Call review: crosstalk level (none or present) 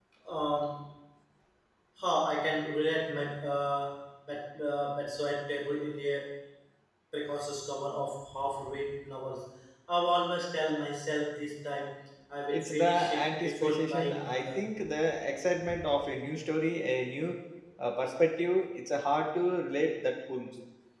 present